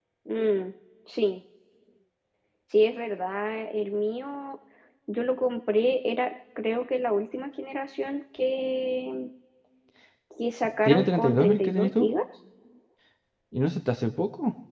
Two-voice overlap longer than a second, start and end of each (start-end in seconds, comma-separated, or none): 10.8-12.1